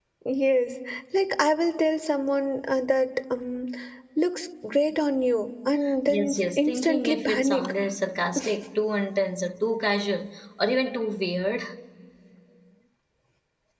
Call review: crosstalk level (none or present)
present